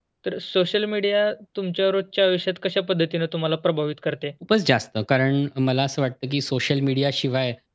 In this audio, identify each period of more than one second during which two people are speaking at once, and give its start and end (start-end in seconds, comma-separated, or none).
none